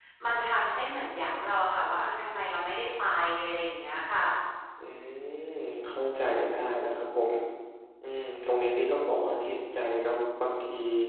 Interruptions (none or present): none